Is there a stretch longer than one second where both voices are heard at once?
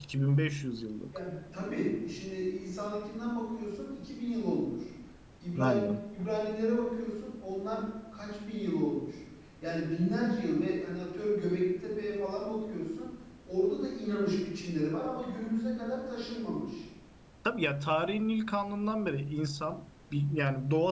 No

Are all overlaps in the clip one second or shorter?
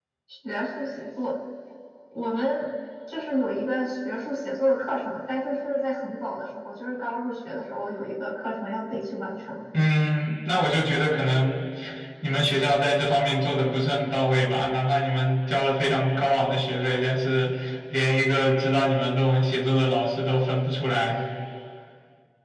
Yes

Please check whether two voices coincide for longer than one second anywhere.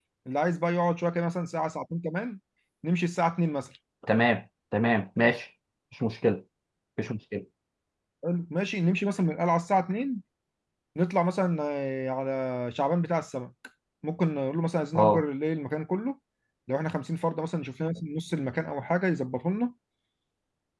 No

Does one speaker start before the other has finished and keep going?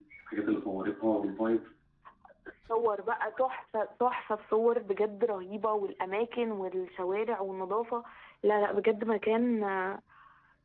No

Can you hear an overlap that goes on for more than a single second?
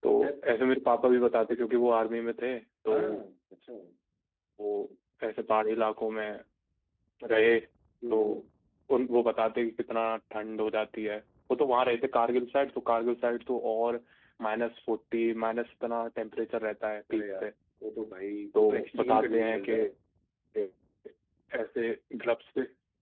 Yes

